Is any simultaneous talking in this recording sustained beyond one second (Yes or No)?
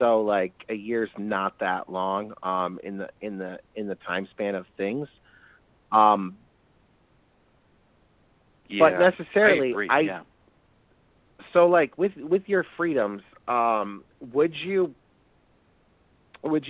Yes